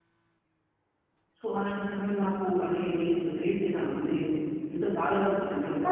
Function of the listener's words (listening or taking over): taking over